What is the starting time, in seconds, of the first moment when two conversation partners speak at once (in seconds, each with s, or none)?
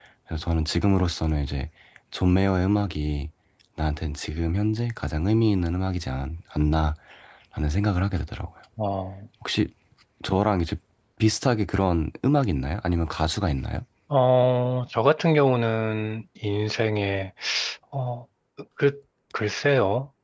none